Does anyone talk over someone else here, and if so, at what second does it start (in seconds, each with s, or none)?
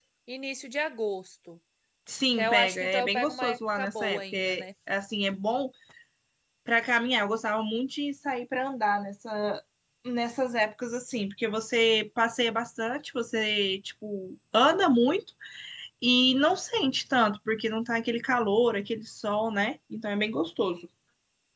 2.4 s